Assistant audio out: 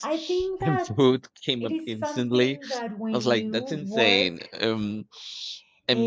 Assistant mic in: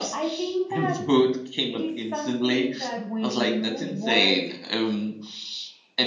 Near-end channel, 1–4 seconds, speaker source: echo only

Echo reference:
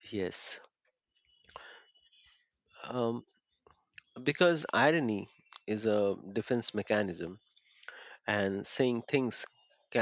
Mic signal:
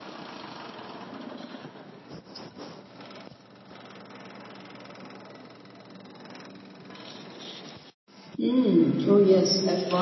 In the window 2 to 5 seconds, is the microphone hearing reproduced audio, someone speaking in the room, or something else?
neither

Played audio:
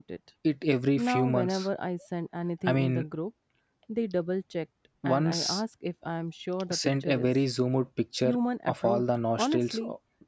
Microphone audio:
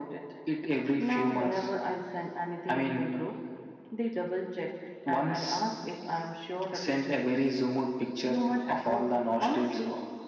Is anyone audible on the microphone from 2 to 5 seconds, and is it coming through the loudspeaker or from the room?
echo only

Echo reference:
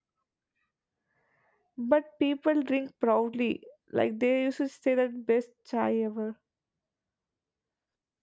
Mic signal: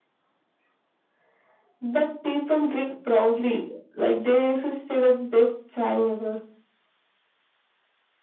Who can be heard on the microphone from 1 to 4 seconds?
echo only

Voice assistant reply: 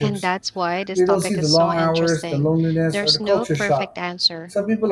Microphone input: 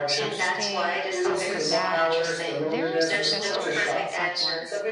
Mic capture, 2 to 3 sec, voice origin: both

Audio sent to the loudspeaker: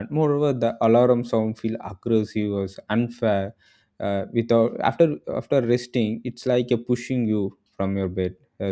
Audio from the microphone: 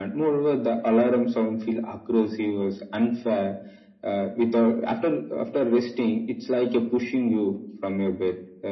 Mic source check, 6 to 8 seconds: echo only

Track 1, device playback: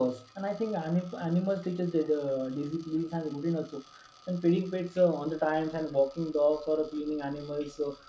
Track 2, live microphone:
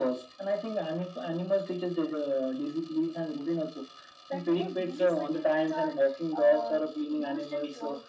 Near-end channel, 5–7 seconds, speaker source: both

